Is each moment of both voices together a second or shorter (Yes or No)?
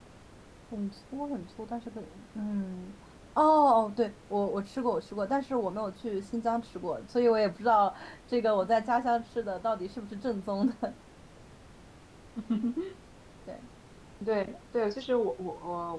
Yes